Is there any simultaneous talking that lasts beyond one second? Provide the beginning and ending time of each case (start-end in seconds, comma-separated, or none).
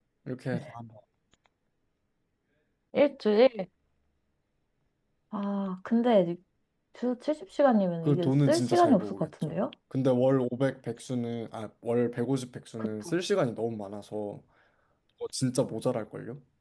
8.0-9.6